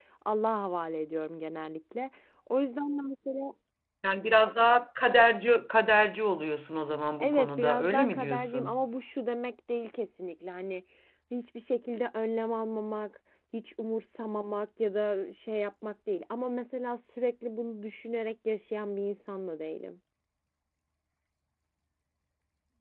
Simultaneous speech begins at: 7.2 s

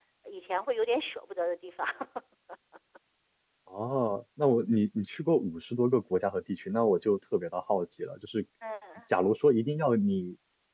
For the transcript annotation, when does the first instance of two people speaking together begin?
none

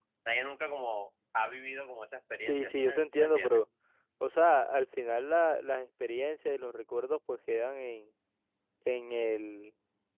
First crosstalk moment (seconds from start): 2.4 s

